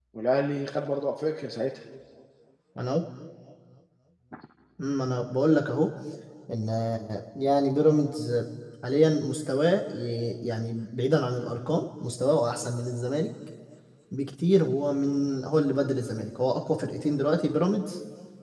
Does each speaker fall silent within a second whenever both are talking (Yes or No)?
Yes